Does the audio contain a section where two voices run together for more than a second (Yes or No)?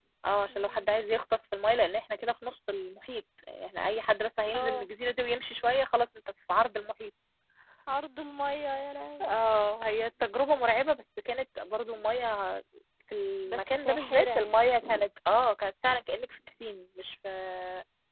Yes